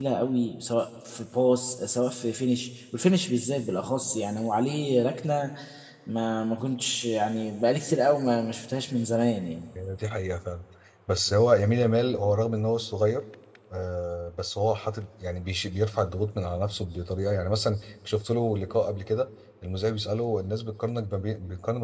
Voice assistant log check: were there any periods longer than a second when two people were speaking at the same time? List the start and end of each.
none

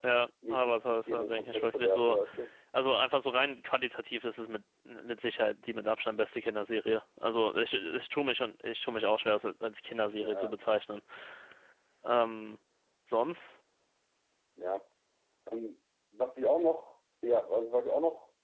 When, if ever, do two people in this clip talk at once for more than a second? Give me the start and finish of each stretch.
0.5-2.2

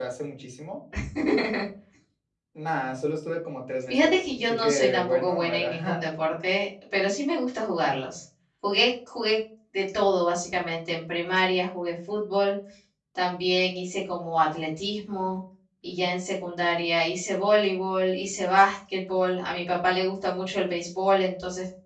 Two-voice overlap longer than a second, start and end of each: 3.9-6.0

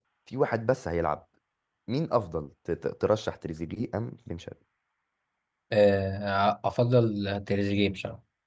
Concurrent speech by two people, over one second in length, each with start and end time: none

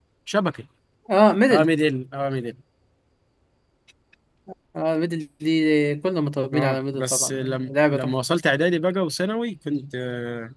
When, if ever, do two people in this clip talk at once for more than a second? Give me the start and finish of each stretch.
6.5-8.1

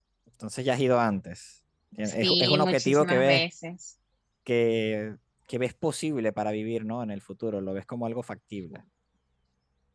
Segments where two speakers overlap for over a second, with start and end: 2.0-3.4

